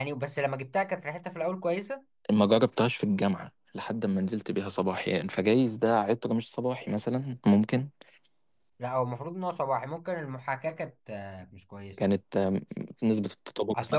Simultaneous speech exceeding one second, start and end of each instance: none

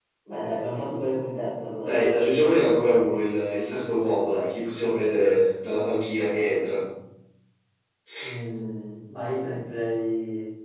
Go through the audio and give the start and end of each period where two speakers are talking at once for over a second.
none

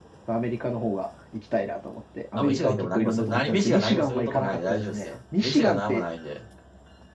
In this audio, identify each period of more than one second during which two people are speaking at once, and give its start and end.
2.3-6.0

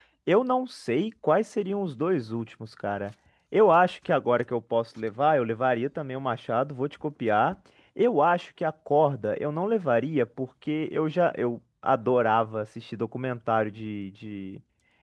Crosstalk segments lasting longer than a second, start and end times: none

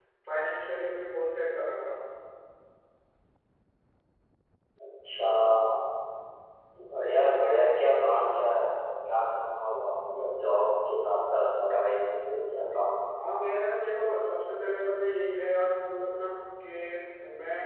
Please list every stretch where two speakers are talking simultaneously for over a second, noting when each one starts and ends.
none

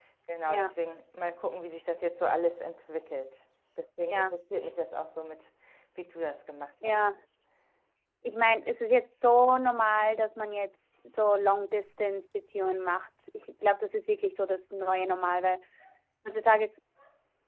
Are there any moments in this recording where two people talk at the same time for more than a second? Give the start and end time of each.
none

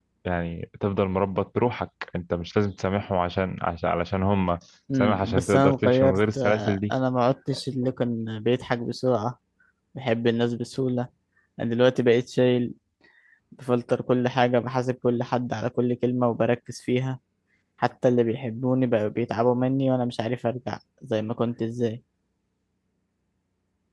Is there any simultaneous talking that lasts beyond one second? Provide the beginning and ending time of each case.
5.0-6.9

